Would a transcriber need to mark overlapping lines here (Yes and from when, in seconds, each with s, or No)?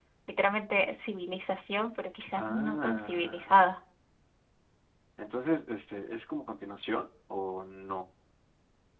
Yes, from 2.4 s